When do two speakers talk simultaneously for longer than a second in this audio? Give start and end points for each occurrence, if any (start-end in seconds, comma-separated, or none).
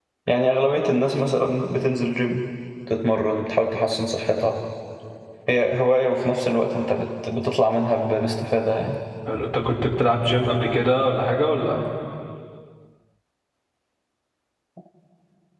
none